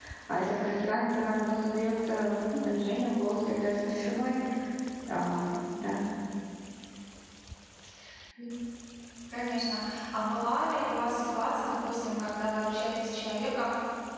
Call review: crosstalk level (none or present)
none